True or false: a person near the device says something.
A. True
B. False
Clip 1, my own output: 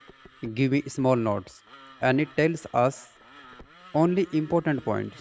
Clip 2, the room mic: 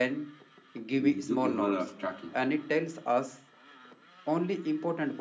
A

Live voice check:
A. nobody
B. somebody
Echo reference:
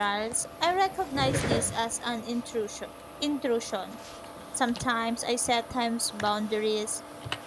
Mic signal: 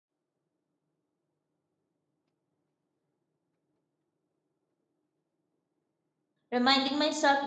B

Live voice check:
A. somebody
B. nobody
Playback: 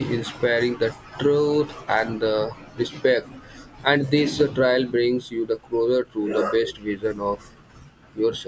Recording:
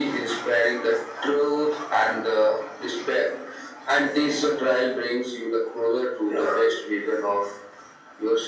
B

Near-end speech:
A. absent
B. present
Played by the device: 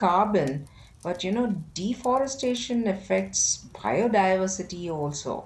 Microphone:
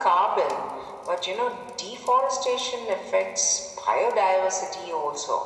A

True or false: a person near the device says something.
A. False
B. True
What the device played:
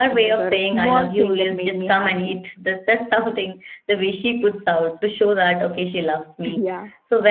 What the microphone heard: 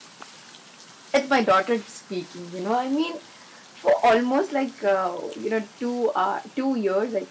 B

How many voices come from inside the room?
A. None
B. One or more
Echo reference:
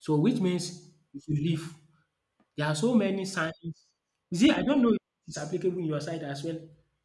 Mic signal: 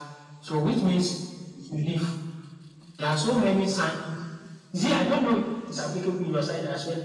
A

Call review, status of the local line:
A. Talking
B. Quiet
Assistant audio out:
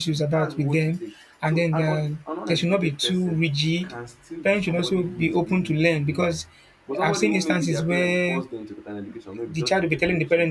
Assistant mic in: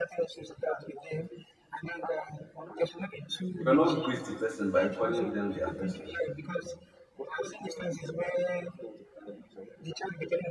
A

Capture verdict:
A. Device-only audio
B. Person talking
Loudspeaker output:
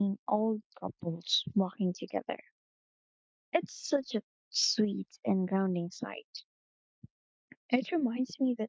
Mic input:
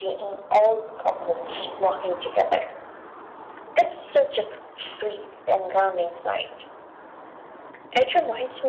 A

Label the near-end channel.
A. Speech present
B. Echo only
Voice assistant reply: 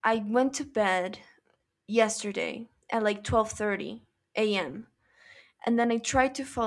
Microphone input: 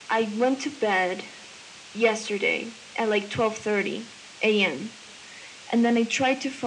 B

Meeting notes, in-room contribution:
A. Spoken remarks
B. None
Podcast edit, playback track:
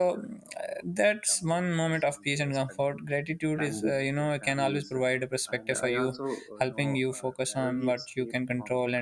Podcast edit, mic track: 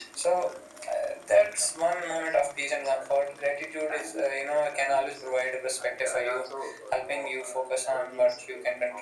B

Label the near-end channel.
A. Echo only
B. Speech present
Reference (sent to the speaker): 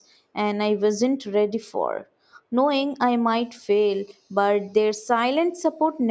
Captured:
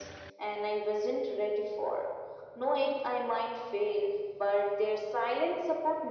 A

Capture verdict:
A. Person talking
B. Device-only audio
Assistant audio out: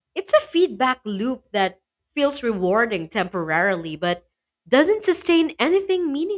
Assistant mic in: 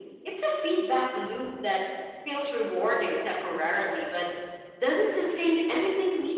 B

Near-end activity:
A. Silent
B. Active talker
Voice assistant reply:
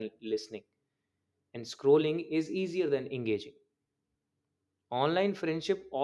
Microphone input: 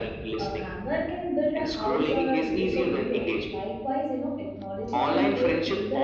B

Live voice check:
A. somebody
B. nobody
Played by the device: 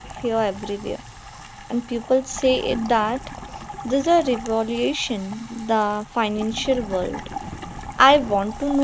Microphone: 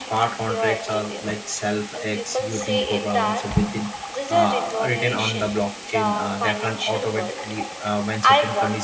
A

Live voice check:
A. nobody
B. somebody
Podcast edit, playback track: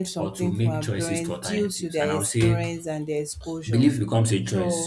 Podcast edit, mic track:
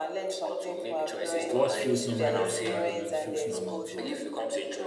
B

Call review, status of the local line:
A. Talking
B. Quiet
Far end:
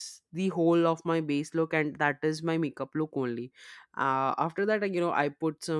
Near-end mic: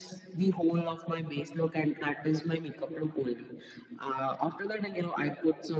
B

